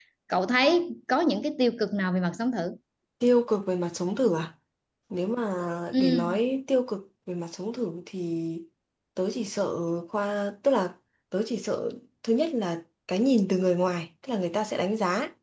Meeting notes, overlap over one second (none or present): none